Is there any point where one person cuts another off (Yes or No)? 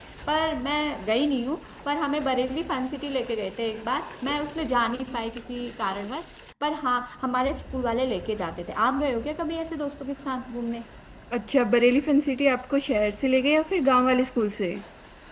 No